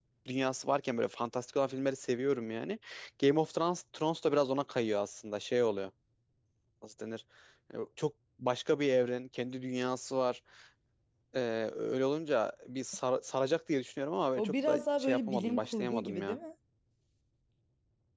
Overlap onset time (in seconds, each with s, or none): 14.4 s